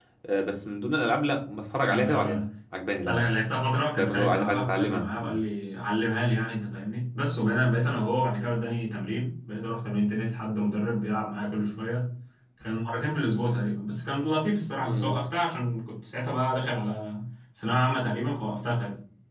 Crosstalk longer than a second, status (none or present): present